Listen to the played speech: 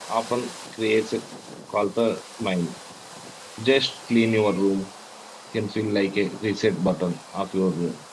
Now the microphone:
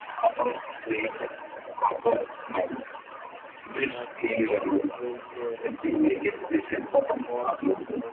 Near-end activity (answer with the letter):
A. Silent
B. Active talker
B